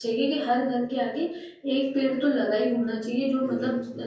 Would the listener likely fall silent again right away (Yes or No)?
Yes